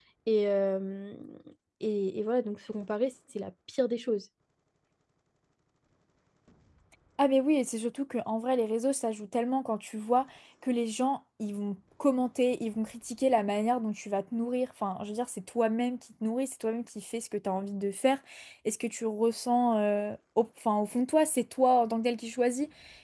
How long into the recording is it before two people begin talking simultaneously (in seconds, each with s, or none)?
none